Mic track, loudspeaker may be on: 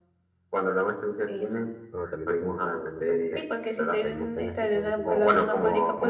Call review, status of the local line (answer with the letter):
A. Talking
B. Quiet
A